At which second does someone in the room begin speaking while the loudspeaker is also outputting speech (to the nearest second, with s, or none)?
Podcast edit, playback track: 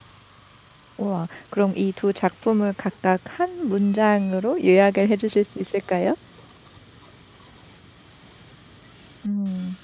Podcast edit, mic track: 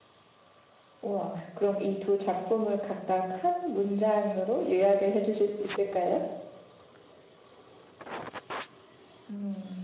none